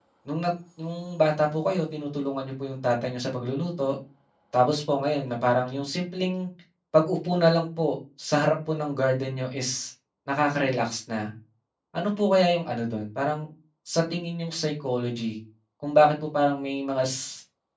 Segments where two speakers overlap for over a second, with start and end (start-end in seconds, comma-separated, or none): none